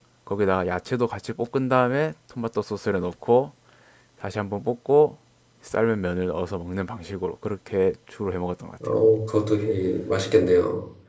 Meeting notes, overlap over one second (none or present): none